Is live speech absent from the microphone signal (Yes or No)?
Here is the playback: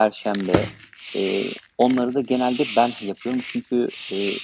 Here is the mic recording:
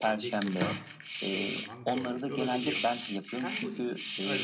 No